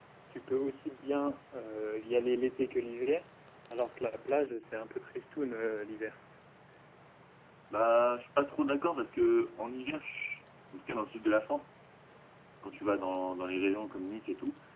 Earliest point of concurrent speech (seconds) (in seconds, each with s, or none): none